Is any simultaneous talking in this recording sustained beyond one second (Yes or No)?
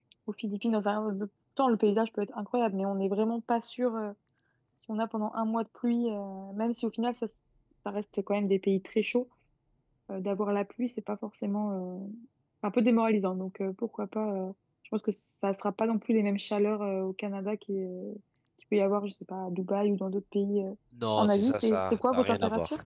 Yes